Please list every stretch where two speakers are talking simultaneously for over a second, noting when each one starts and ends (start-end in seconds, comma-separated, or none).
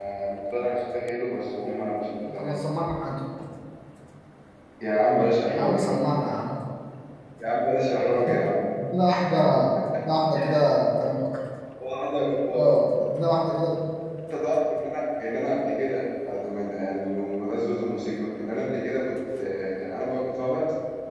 none